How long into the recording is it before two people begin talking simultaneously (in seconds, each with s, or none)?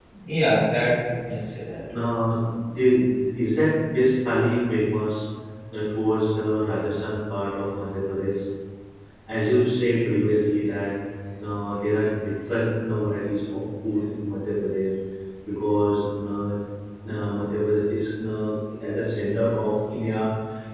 none